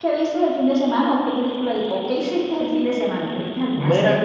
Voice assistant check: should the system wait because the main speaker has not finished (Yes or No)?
No